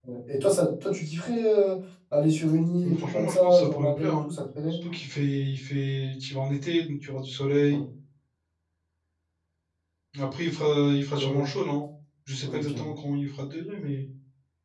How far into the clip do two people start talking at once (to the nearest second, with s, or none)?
3 s